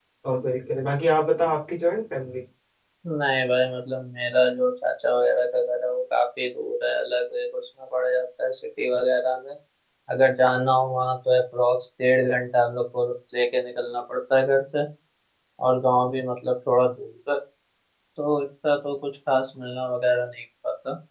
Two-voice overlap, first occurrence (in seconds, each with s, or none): none